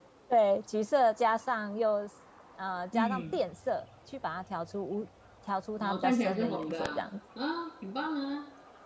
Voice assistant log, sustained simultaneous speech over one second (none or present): present